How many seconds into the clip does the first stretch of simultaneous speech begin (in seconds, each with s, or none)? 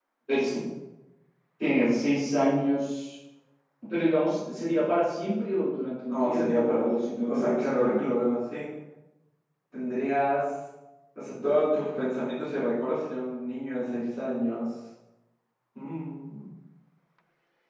6.1 s